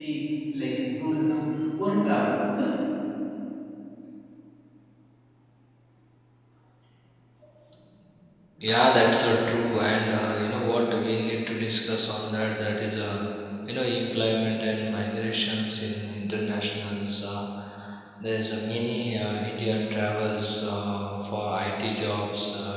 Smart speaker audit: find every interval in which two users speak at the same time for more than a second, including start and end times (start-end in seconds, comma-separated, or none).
none